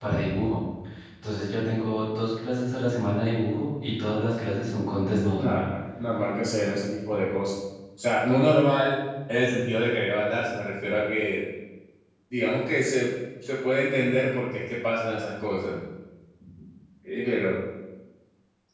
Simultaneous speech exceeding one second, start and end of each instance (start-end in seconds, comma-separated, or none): none